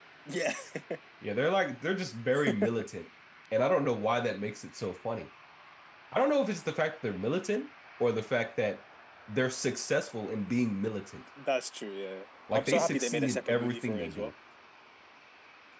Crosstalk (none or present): present